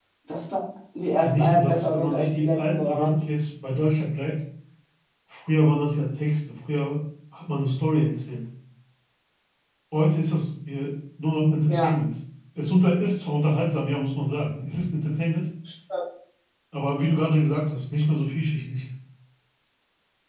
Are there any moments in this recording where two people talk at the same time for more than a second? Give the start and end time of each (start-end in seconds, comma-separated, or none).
1.2-3.2